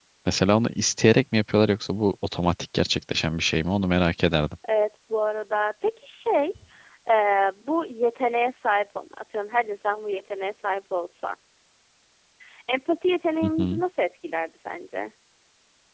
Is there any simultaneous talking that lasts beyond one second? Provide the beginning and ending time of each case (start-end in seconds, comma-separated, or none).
none